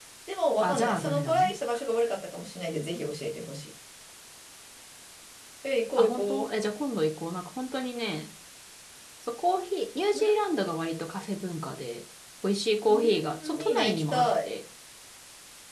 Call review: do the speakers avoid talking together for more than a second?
No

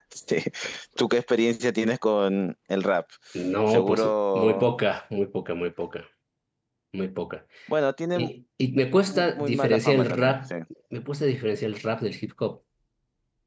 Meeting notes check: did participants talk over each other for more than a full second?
Yes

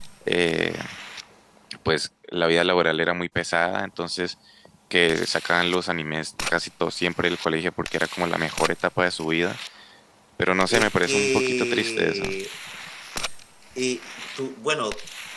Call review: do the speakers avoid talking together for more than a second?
No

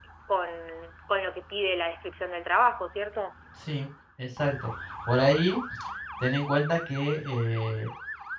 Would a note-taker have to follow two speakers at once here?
No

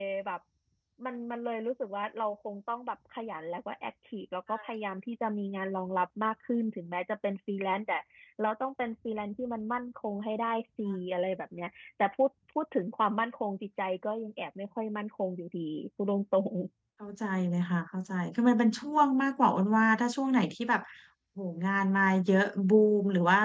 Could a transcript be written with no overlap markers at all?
Yes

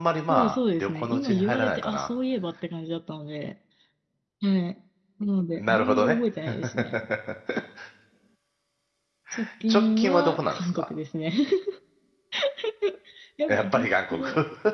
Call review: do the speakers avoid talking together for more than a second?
No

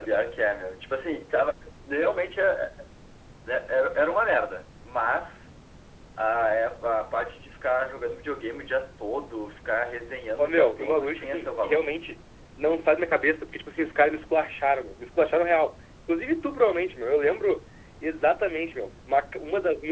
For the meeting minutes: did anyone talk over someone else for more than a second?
Yes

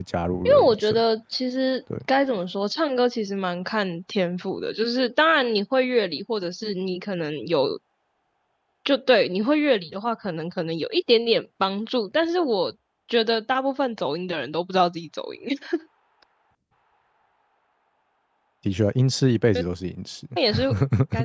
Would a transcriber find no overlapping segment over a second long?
Yes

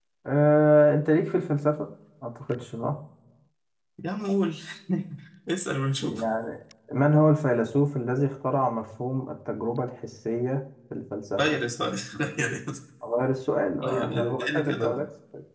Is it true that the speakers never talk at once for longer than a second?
No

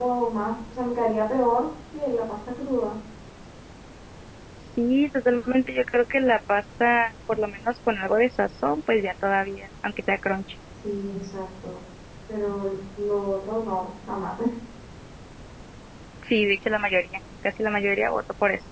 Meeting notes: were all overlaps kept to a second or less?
Yes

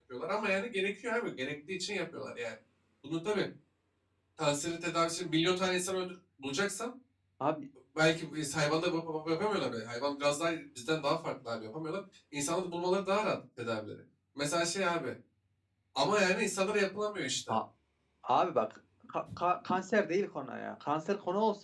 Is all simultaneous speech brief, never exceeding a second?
Yes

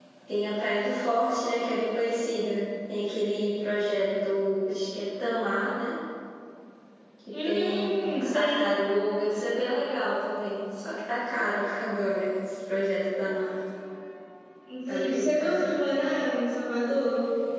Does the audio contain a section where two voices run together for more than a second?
Yes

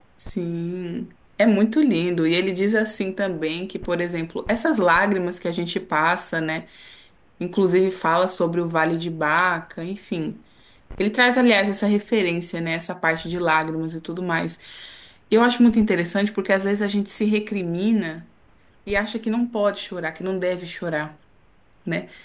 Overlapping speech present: No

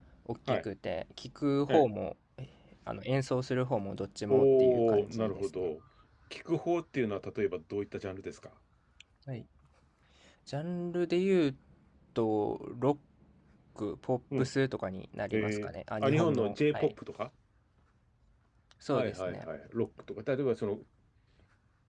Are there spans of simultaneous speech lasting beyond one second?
Yes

